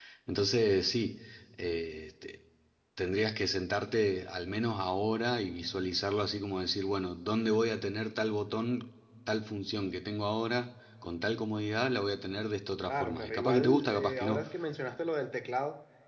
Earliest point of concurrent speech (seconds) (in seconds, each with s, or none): 12.9 s